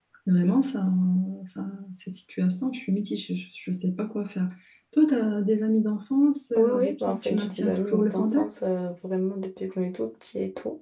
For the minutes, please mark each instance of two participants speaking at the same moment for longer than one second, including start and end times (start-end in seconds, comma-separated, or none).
6.5-8.5